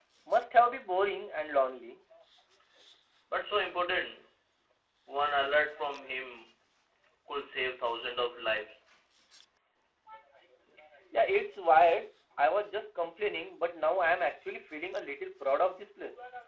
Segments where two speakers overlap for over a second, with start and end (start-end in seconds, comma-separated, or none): none